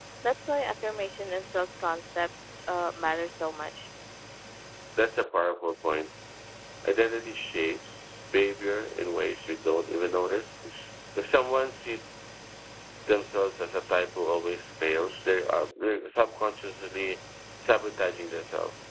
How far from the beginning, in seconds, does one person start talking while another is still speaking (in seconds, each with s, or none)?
none